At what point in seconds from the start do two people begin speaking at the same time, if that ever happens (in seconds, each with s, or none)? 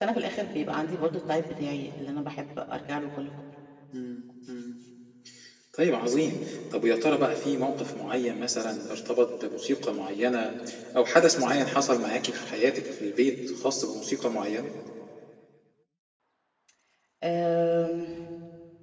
none